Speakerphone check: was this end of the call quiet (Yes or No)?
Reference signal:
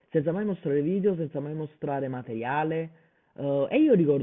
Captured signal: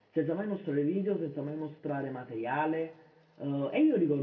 Yes